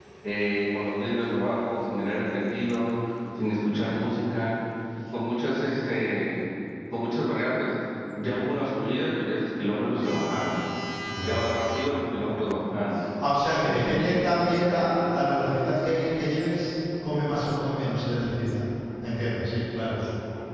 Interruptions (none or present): present